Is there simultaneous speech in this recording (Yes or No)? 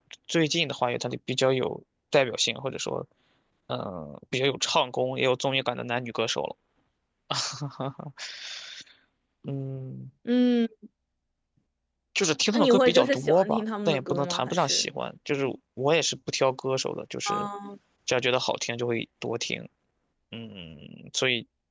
Yes